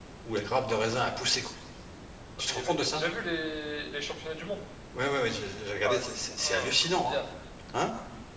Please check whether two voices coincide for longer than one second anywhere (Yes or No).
Yes